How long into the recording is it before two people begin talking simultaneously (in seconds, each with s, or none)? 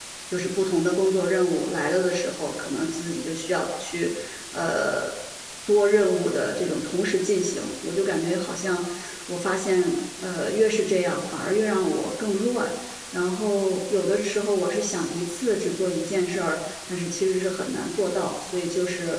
none